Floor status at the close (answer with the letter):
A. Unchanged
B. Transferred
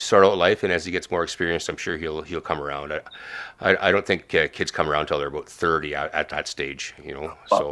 B